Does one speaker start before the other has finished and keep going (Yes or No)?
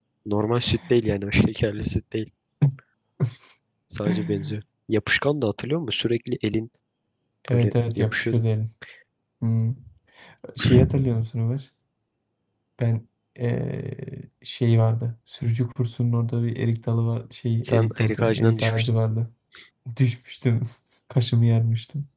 Yes